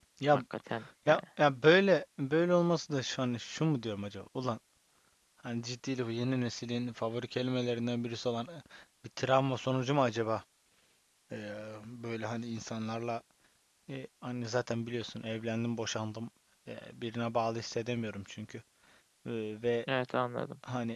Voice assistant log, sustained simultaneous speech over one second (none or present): none